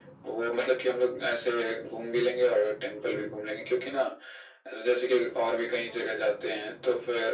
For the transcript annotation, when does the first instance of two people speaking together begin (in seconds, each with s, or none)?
none